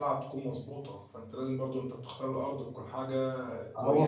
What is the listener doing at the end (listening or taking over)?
taking over